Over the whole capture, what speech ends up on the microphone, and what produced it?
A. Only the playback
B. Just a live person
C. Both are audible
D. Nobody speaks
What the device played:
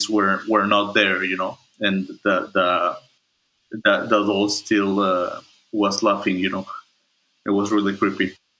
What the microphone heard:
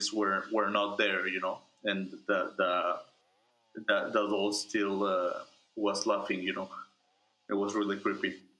A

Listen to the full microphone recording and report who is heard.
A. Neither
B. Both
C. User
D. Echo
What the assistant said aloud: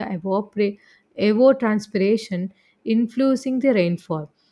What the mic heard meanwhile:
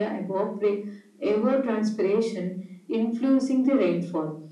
D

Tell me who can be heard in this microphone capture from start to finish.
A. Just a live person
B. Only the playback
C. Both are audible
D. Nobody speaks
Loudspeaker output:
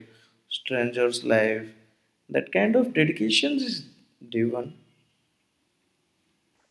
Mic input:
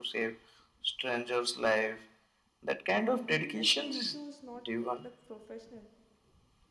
C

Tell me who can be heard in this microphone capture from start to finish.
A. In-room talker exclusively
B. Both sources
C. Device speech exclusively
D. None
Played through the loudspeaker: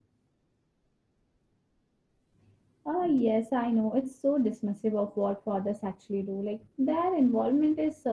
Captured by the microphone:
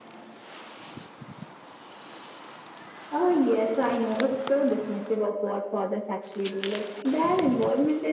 C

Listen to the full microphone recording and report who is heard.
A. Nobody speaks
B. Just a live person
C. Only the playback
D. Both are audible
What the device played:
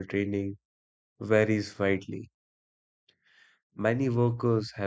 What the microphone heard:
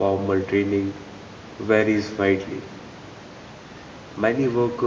C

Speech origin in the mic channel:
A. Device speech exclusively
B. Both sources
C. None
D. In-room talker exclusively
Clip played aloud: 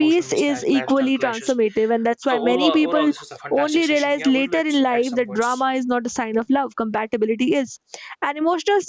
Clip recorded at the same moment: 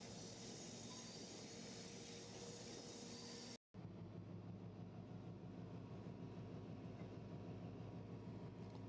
C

